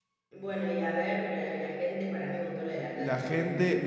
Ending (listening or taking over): taking over